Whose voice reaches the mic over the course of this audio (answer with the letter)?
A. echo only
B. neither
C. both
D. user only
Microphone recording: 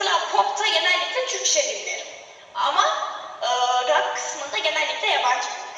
A